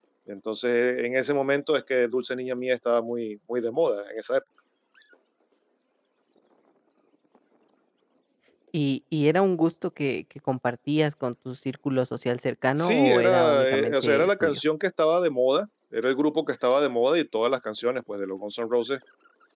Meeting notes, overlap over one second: present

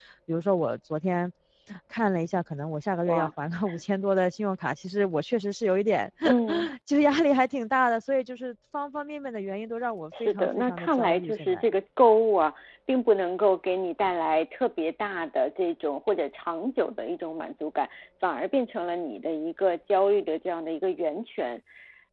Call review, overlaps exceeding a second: present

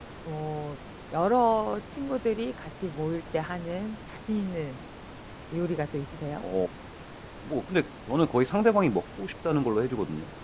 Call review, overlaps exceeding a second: none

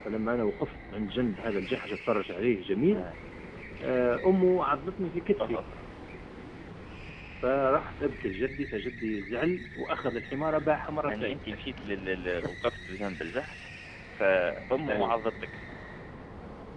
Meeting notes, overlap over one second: none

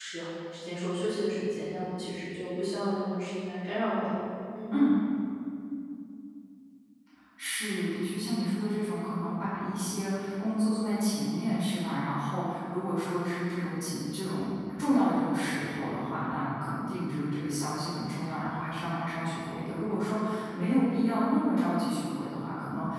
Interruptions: none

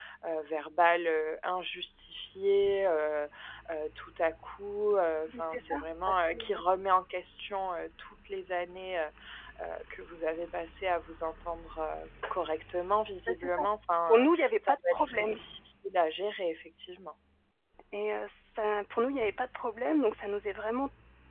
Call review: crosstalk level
present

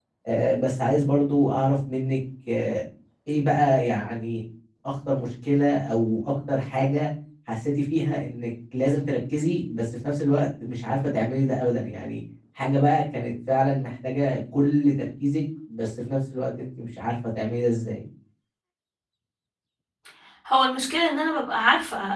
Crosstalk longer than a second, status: none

